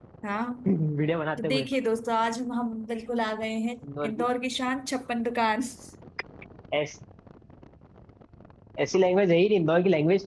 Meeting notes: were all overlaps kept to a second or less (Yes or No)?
Yes